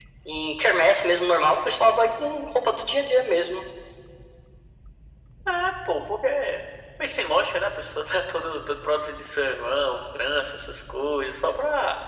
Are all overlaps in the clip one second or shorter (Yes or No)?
Yes